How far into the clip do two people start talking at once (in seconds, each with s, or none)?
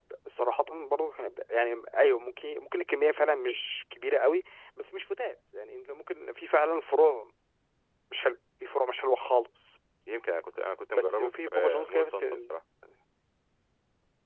10.9 s